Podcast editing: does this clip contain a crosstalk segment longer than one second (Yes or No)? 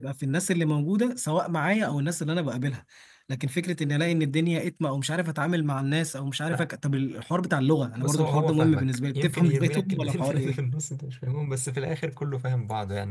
Yes